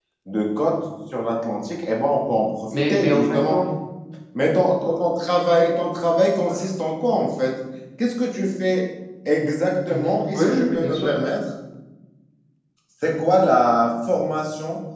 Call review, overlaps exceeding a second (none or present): present